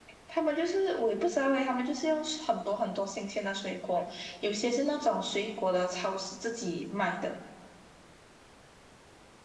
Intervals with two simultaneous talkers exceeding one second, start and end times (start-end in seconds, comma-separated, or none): none